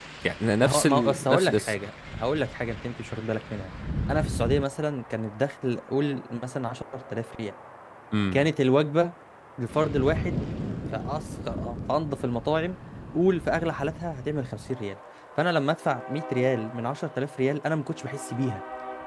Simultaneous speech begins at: 0.6 s

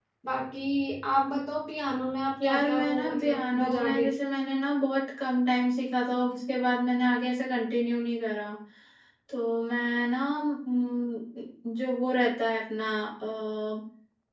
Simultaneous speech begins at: 2.4 s

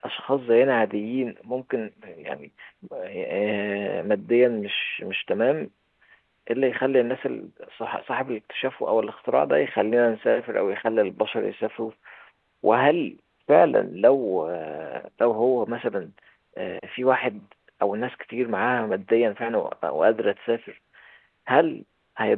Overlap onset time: none

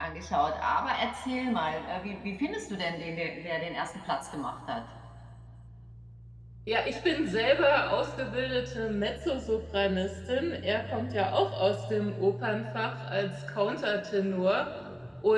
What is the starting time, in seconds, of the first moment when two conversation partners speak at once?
none

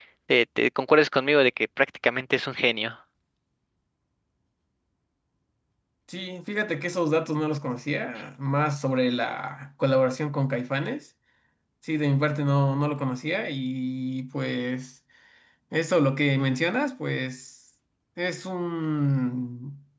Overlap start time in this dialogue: none

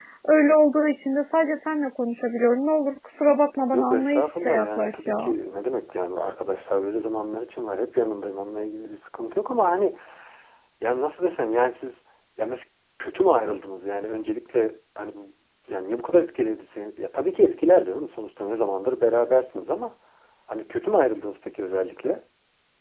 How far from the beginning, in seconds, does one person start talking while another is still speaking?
3.7 s

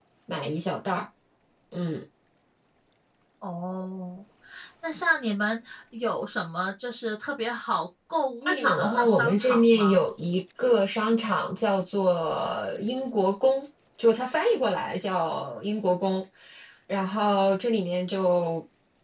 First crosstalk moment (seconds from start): 8.5 s

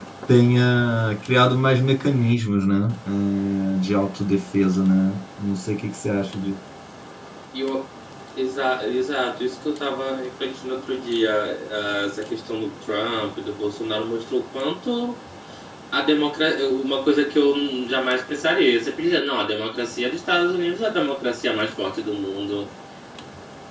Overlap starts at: none

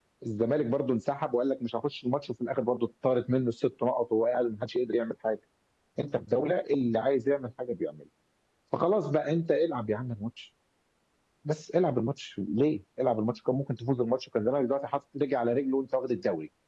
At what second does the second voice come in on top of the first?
none

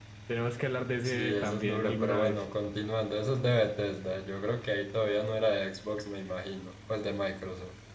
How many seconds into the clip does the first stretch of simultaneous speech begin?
1.0 s

